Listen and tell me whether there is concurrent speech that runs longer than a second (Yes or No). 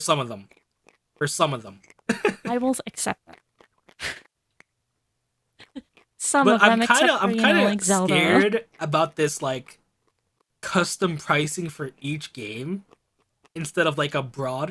Yes